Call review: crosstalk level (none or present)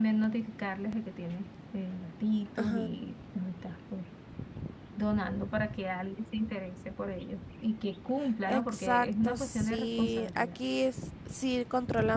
present